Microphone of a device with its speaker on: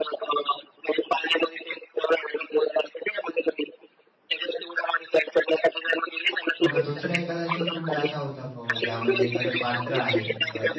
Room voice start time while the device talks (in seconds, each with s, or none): 6.6 s